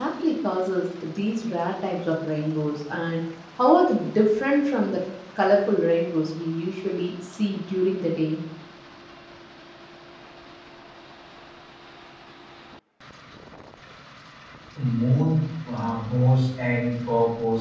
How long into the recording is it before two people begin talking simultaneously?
none

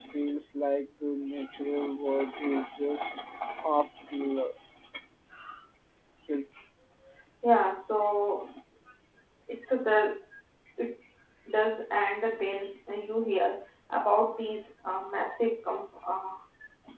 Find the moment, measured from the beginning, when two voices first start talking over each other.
none

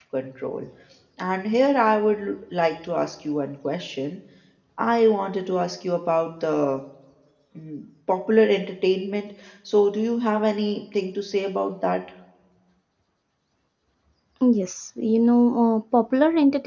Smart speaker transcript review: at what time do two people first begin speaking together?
none

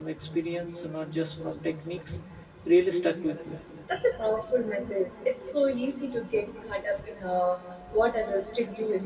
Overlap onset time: none

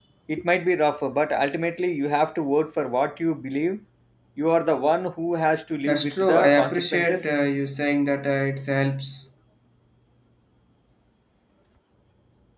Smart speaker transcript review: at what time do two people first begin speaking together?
5.9 s

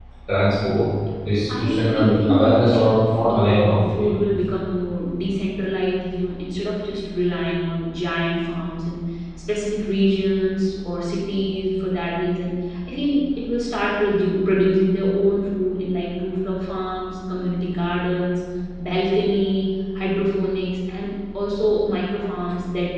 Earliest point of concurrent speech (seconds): 1.5 s

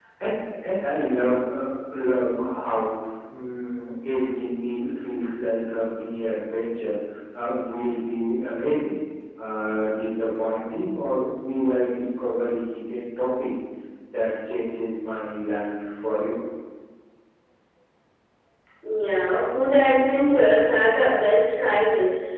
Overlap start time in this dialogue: none

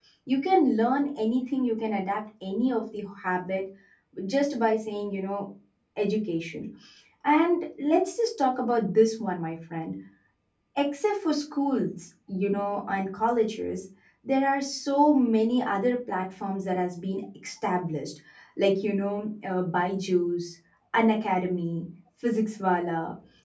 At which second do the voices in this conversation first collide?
none

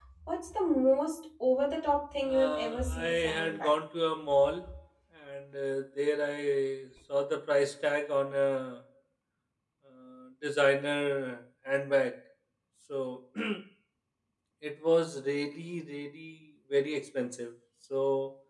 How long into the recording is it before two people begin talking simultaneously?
2.3 s

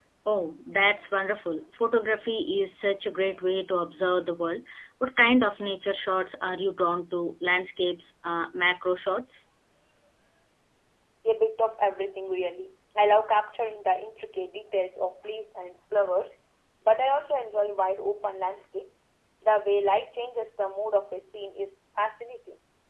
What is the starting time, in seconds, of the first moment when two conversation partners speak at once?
none

